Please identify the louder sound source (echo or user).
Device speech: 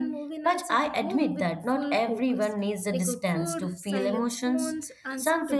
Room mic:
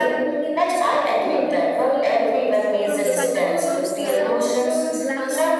echo